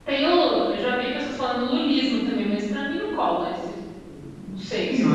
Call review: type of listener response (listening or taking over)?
taking over